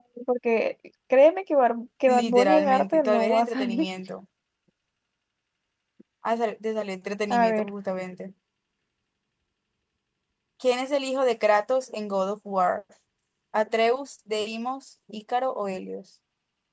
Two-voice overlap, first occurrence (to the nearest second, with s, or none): 2 s